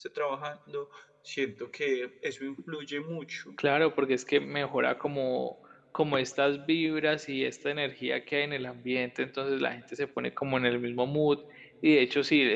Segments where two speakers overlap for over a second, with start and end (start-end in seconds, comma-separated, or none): none